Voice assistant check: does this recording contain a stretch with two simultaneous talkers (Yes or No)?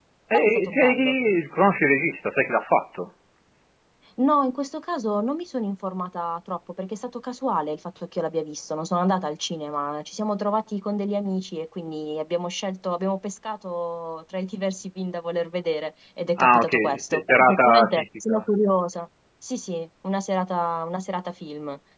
Yes